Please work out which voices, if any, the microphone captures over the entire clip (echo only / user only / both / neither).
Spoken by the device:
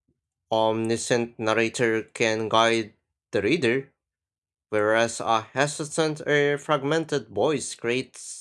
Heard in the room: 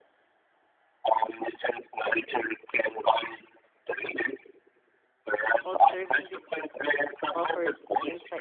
both